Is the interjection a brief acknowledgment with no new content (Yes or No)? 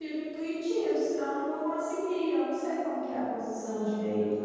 No